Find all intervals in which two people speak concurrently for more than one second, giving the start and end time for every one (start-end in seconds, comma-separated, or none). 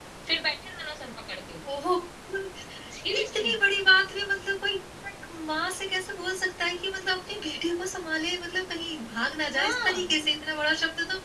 none